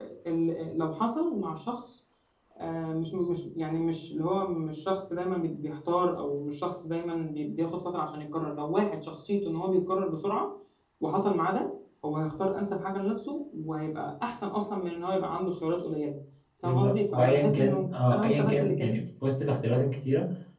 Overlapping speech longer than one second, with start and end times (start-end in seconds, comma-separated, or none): 16.6-19.0